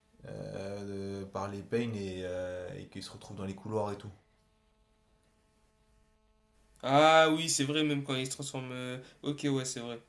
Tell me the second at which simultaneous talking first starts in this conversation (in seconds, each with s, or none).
none